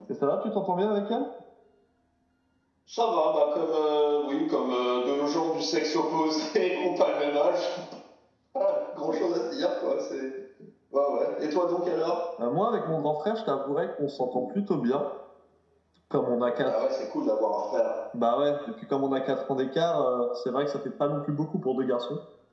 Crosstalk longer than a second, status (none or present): none